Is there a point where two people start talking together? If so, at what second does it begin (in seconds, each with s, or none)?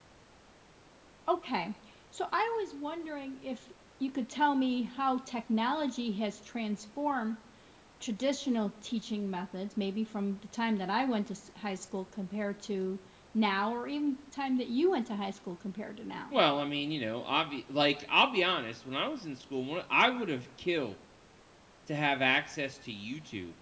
none